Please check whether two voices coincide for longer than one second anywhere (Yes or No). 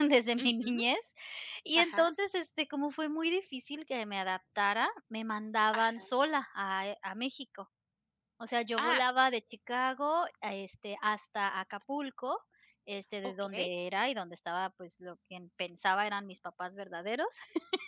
No